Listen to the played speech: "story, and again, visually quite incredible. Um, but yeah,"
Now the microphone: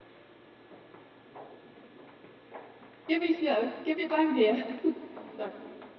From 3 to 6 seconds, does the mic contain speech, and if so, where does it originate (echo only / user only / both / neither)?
user only